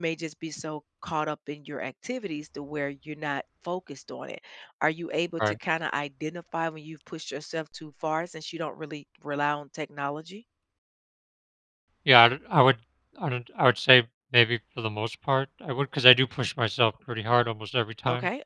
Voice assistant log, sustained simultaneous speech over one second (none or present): none